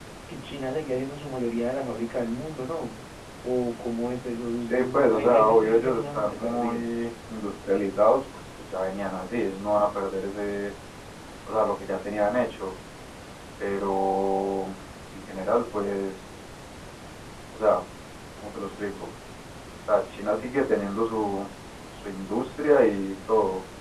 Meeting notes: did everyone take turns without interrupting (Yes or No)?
No